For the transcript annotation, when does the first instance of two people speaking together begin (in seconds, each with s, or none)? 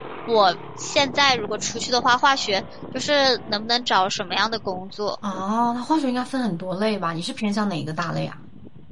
none